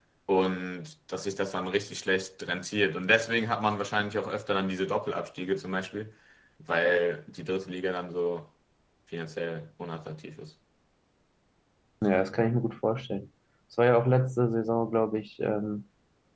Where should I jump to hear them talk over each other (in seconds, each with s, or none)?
none